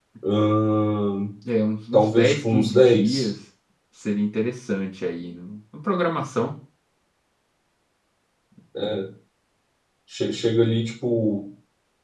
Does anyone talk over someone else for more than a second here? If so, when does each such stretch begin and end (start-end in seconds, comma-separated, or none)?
1.9-3.3